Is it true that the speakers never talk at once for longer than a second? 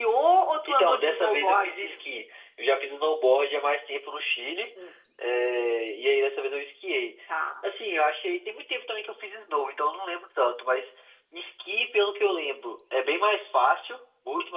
No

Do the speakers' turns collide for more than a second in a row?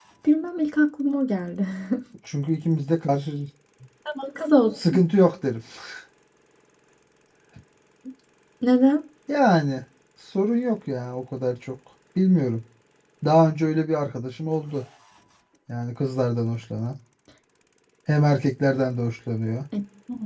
No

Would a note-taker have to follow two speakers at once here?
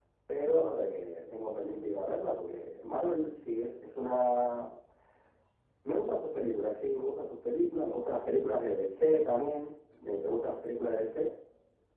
No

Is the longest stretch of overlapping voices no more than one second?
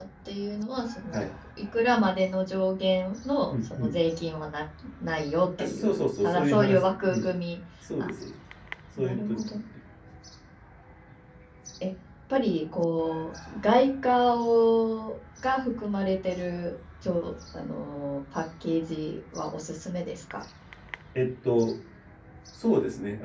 No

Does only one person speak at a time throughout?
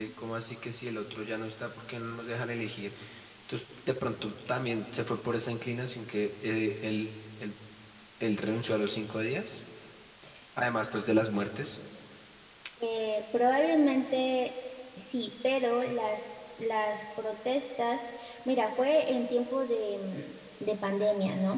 Yes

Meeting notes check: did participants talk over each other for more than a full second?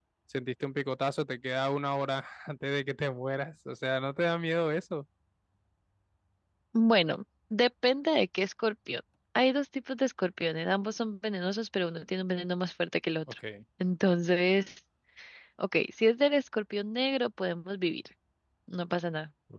No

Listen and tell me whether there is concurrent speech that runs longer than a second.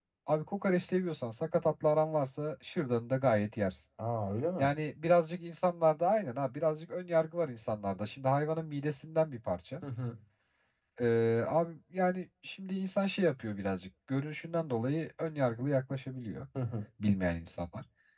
No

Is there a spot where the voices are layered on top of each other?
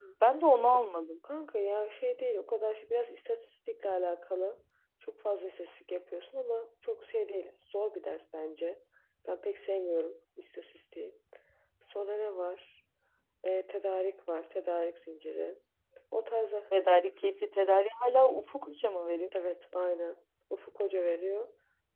No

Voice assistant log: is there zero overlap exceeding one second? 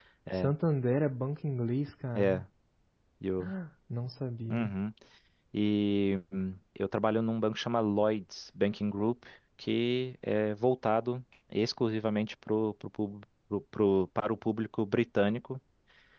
Yes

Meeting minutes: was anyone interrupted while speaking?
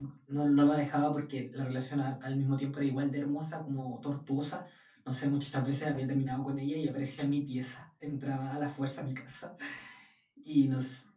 No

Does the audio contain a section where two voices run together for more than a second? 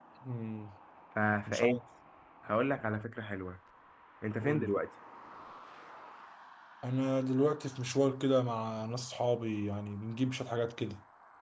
No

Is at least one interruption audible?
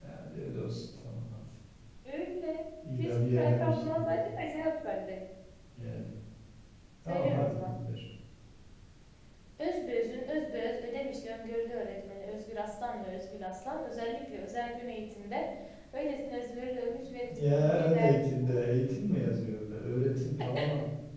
Yes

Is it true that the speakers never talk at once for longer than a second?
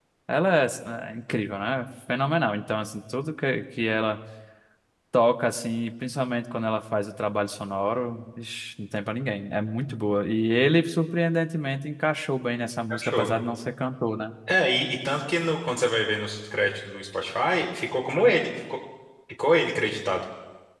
Yes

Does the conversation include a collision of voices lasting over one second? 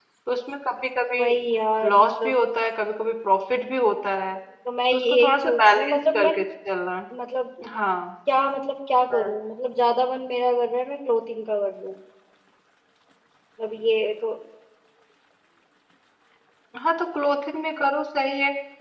Yes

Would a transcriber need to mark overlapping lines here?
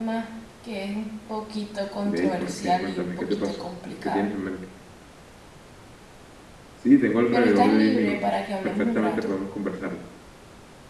Yes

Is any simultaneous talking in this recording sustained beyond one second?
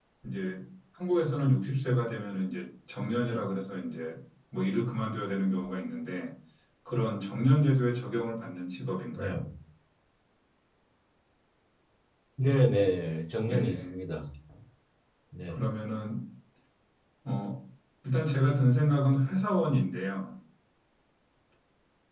No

